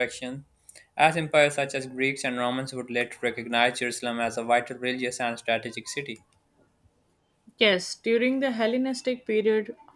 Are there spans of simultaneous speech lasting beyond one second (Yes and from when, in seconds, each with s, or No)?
No